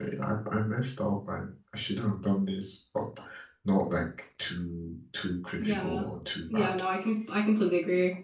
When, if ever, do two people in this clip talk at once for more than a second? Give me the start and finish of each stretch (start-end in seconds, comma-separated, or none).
none